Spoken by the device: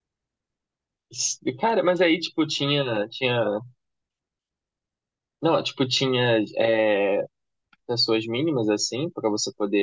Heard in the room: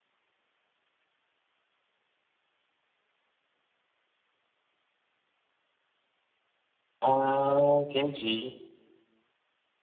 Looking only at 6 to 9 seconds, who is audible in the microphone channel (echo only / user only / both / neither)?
user only